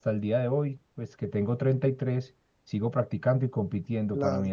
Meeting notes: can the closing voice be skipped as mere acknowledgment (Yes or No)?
Yes